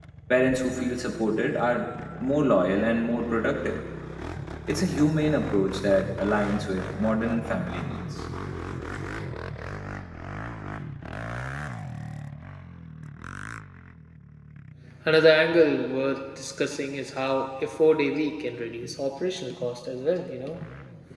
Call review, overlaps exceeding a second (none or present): none